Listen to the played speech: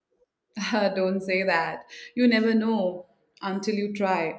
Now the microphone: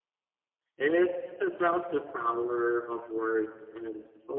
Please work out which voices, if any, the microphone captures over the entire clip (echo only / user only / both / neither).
user only